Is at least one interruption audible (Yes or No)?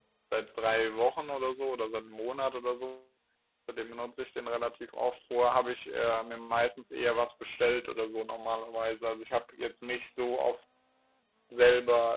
No